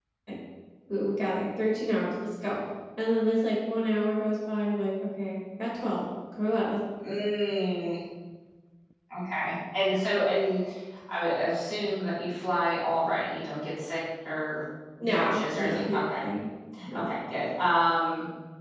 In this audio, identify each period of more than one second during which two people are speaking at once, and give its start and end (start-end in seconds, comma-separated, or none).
15.0-16.3